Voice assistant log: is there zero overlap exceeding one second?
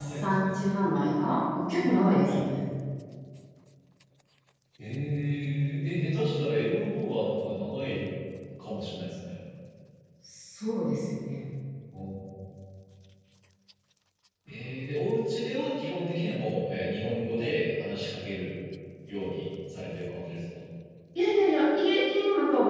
Yes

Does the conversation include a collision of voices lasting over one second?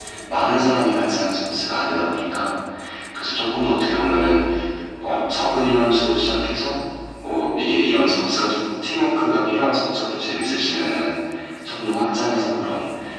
No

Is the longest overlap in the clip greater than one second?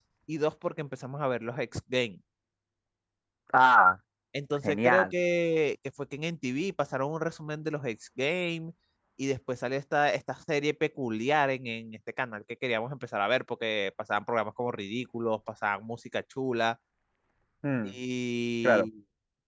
No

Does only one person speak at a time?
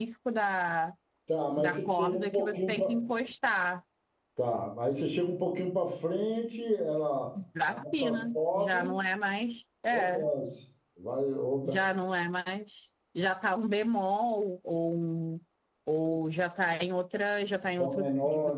No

